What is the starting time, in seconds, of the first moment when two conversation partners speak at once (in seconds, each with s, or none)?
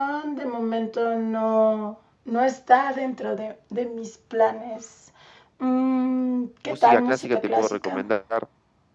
6.7 s